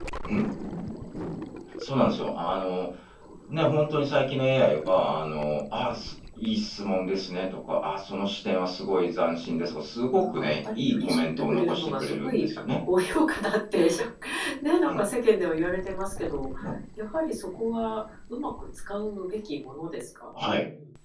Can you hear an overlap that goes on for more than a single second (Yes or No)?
Yes